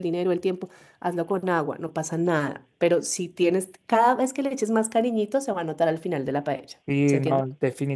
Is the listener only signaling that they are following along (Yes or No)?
No